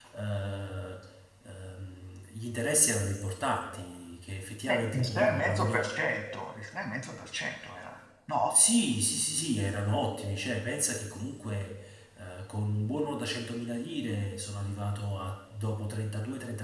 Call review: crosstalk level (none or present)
present